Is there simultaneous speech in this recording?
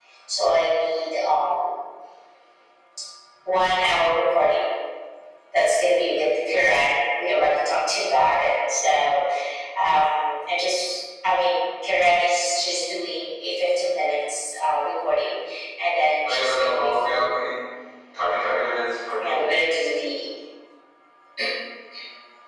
Yes, from 16.2 s

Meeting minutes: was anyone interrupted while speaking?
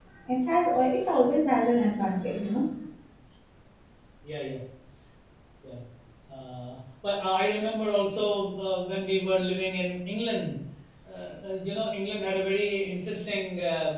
No

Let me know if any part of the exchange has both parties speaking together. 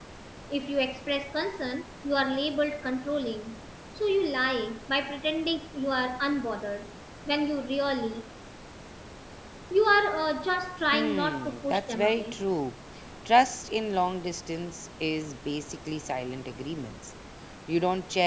Yes, from 10.9 s

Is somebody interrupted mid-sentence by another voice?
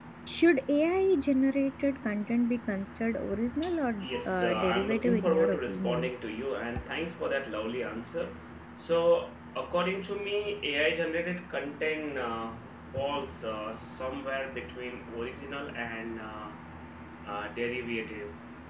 Yes, from 4.0 s

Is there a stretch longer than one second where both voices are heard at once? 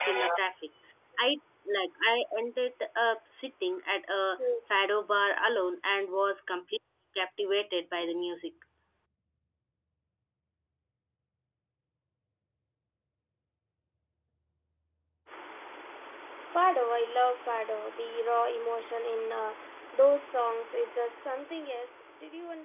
No

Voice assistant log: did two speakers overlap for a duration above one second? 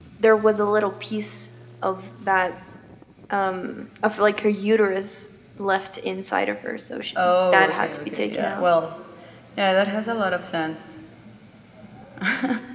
Yes, from 7.2 s

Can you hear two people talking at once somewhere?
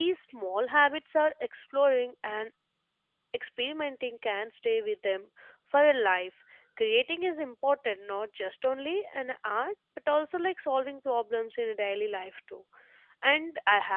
No

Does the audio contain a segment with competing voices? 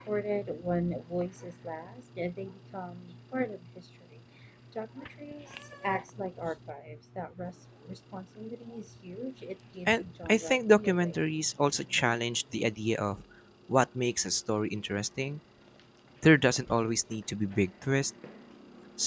Yes, from 9.9 s

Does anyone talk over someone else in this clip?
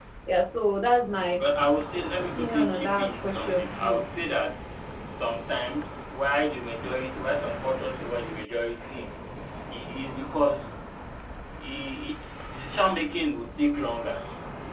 Yes, from 2.2 s

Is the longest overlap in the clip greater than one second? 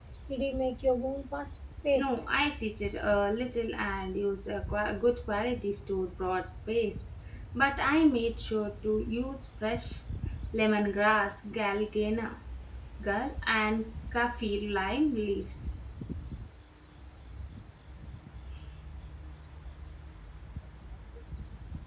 No

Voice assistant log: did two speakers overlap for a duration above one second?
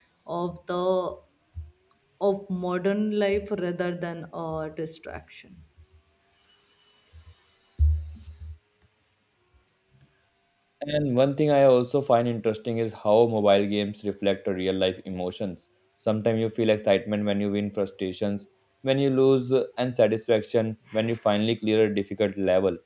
No

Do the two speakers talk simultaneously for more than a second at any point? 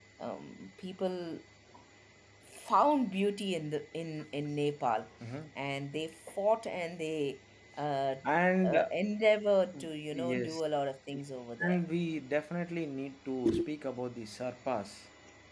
No

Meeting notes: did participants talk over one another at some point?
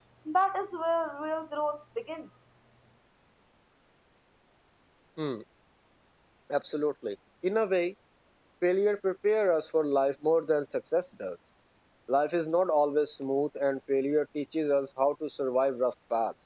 No

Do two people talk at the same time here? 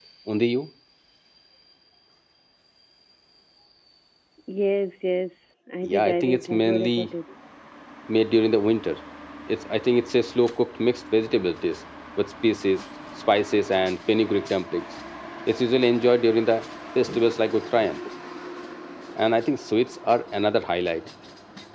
Yes, from 5.8 s

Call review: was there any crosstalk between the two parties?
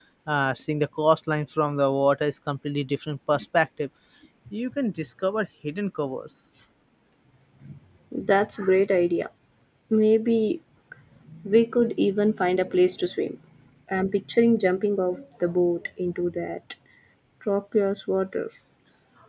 No

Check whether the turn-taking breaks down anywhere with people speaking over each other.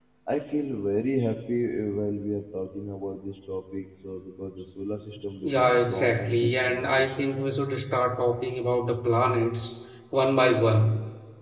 Yes, from 5.4 s

